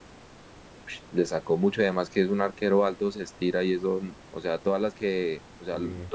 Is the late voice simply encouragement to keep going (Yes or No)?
Yes